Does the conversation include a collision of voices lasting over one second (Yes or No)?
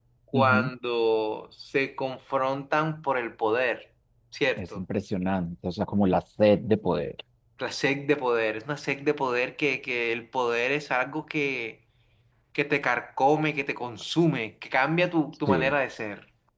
No